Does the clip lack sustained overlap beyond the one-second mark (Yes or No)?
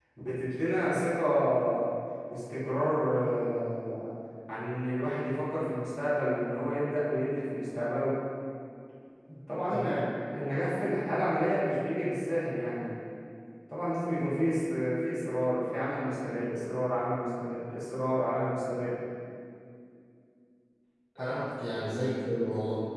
Yes